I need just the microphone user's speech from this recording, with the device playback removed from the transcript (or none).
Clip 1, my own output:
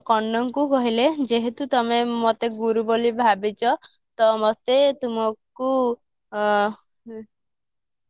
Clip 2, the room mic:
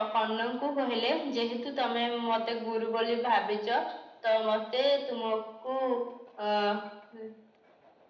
none